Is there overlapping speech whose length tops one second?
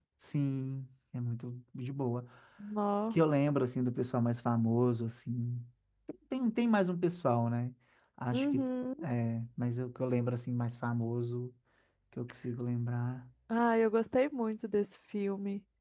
No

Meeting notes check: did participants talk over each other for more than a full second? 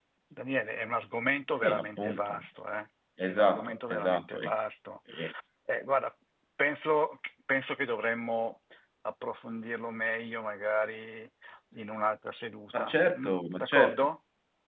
Yes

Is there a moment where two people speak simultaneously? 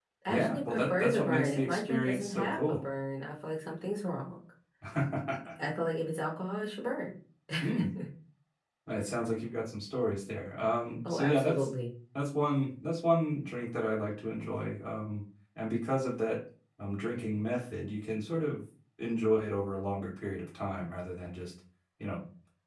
Yes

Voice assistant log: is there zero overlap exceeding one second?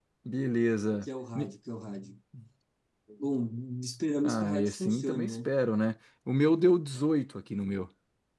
No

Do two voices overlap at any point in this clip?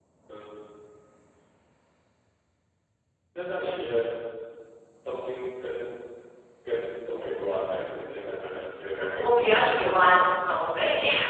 Yes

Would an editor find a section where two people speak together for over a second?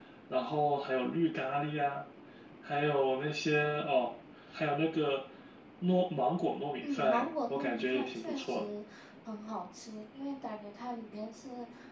Yes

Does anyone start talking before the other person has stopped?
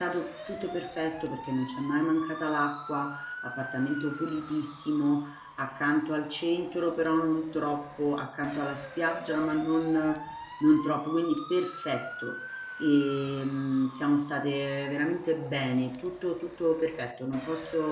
No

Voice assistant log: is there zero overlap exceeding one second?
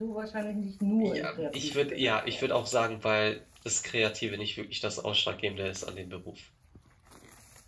No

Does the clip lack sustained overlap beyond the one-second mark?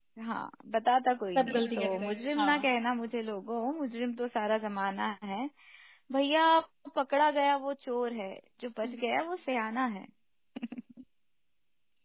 No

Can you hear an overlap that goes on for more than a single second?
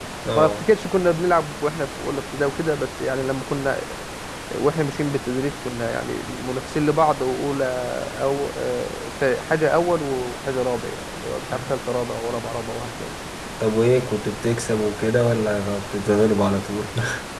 No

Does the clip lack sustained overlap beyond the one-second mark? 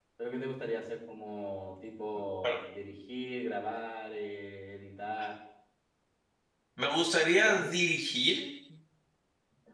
Yes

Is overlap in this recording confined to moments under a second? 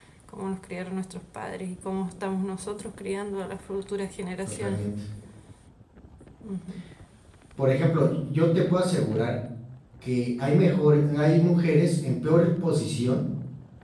Yes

